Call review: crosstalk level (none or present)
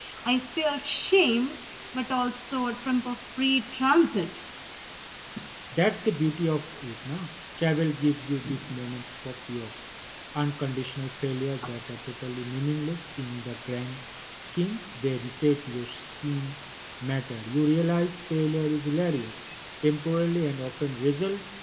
none